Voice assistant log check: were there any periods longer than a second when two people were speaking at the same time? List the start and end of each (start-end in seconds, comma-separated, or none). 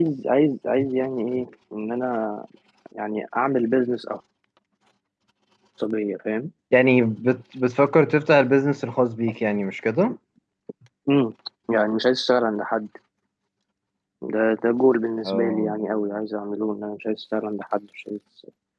none